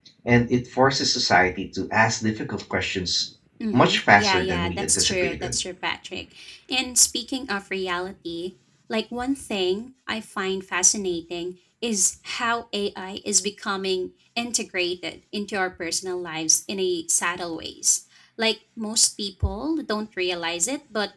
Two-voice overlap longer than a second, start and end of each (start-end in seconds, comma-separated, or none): 3.7-5.6